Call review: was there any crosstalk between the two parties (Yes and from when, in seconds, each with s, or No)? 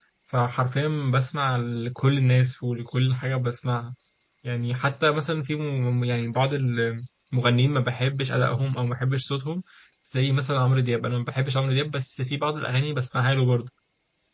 No